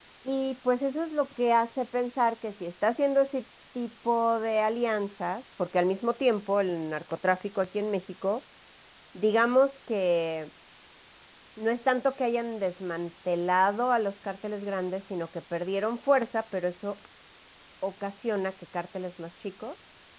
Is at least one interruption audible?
No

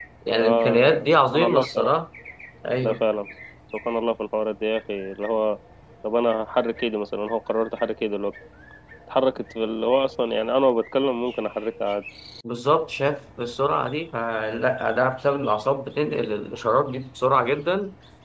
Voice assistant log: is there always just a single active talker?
No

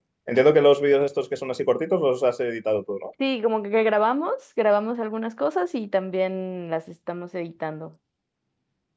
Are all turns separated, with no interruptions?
Yes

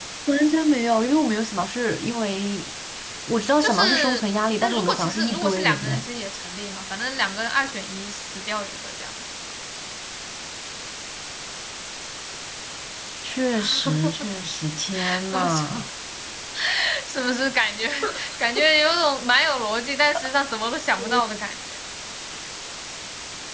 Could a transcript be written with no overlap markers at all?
No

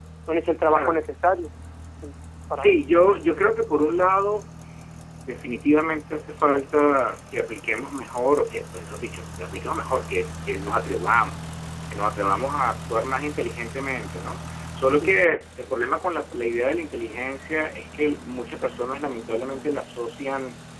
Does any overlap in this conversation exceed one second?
No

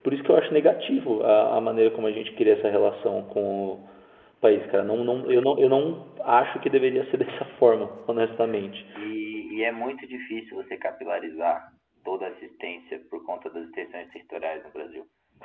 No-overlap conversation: Yes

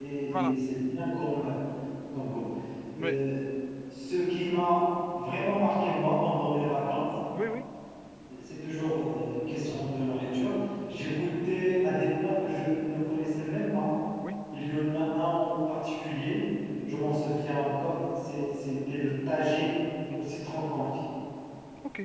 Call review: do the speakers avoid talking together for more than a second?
Yes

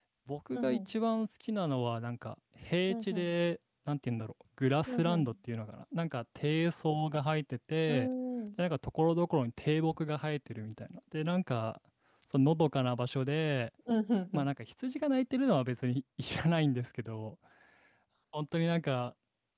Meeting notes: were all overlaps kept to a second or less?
Yes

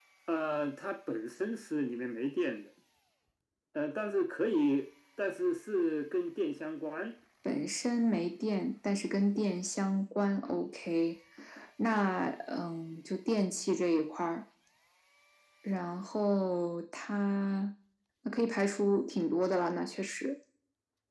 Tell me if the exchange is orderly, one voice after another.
Yes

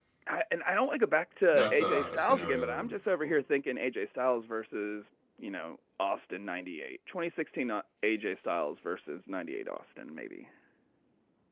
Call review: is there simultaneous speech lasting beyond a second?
Yes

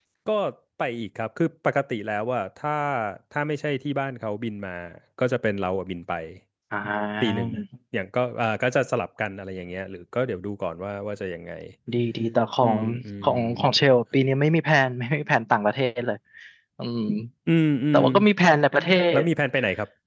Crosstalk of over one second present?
No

